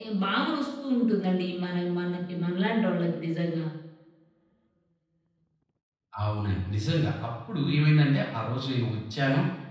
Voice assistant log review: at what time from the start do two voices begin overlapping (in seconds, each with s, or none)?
none